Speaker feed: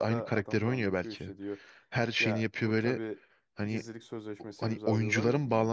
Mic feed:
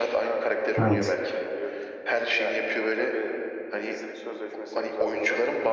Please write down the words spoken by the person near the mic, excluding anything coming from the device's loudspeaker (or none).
Evet.